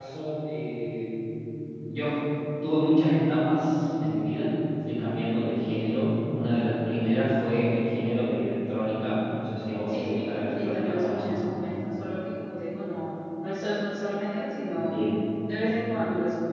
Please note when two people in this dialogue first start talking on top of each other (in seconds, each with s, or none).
9.9 s